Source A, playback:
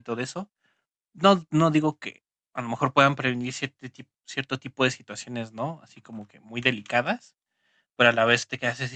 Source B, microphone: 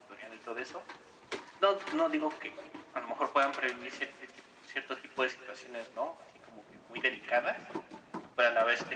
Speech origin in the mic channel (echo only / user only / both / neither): echo only